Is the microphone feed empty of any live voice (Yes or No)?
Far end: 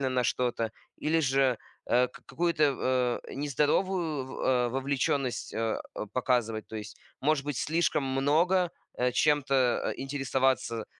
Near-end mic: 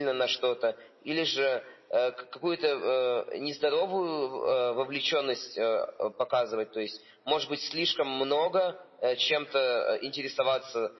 Yes